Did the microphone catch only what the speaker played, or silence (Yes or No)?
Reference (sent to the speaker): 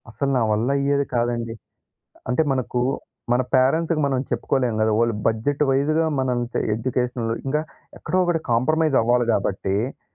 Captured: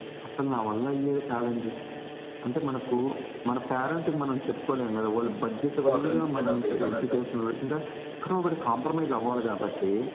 No